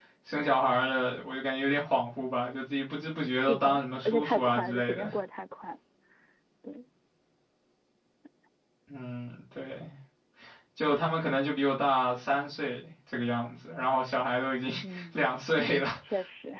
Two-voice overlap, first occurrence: 3 s

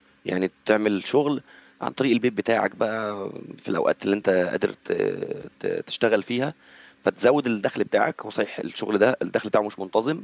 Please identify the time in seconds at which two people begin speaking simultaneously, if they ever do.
none

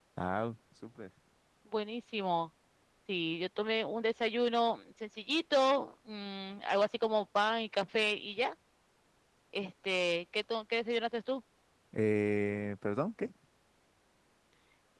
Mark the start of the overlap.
none

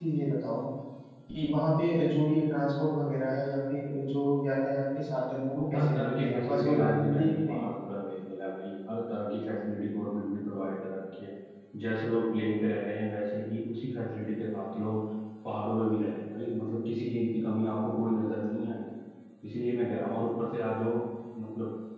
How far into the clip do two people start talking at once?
6 s

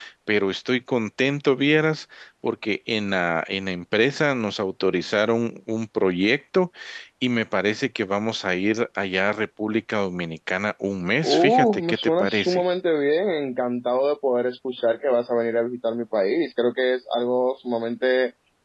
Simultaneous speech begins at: 11 s

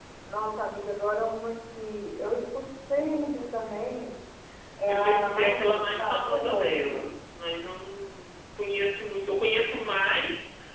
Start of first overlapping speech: 5 s

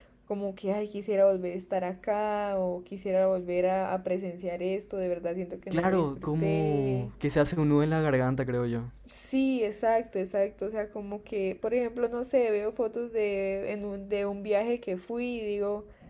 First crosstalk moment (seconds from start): 6 s

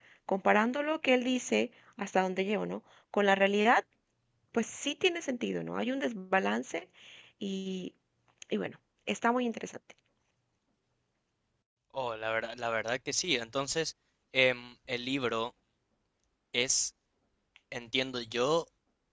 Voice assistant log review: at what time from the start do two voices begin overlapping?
none

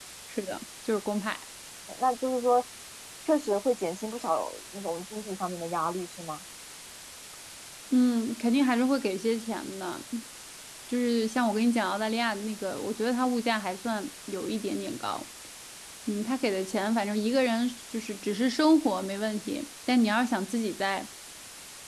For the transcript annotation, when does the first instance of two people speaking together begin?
none

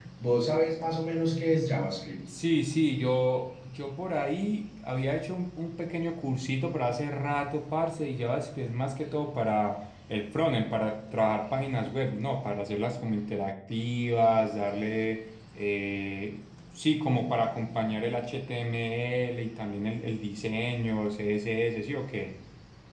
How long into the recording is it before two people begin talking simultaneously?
none

